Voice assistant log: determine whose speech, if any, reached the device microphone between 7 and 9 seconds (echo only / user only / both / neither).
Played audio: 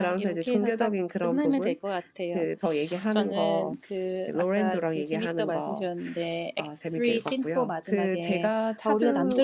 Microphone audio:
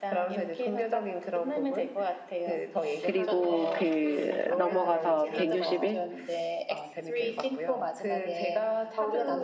echo only